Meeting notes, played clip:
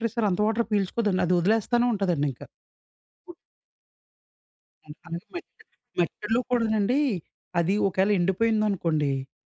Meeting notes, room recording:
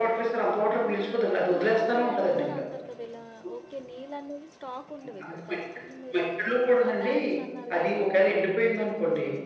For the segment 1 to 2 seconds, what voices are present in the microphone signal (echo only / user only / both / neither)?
both